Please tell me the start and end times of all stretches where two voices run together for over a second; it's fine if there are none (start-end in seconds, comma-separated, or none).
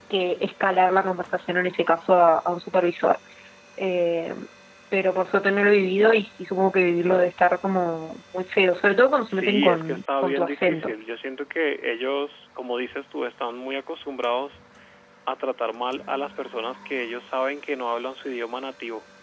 9.3-10.9